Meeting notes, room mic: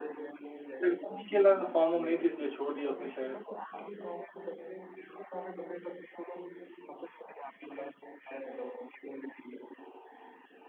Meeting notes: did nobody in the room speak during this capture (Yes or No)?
No